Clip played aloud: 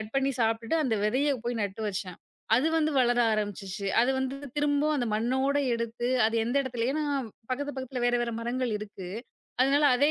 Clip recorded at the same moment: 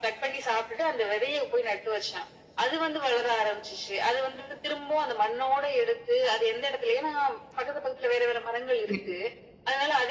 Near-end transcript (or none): சரி.